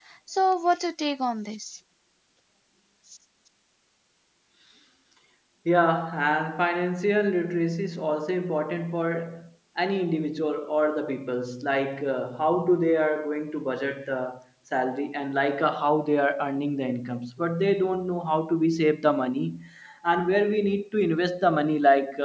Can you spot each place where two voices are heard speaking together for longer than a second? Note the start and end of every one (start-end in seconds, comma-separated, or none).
none